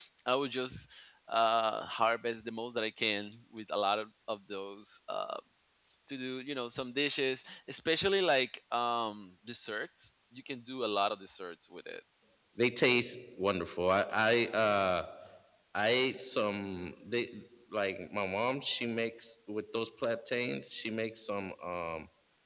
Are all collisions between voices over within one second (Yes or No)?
Yes